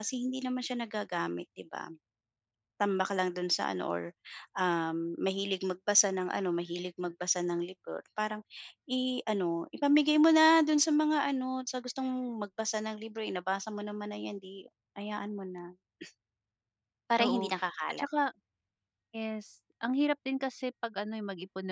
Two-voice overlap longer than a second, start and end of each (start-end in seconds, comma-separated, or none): none